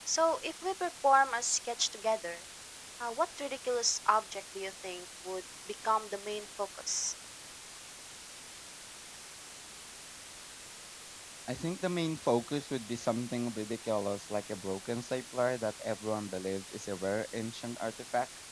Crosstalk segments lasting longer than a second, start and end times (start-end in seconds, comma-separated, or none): none